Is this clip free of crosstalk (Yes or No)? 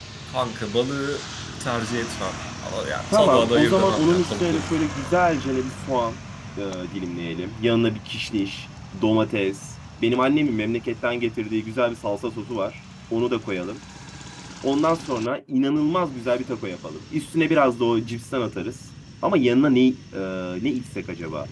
No